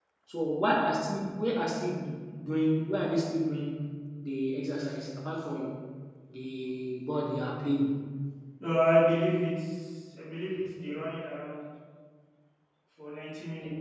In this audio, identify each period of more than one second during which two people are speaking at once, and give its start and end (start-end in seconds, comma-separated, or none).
none